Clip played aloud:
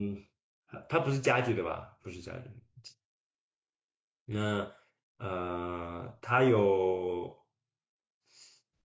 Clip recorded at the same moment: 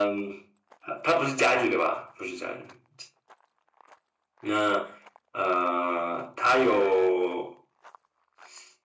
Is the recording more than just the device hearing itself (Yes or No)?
No